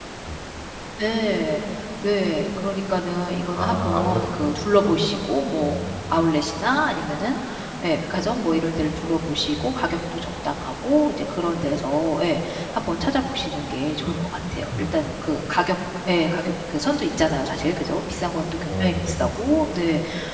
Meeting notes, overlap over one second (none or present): present